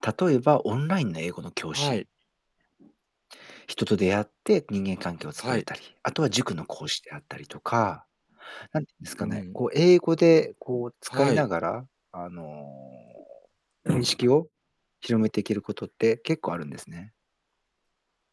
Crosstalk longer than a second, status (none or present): none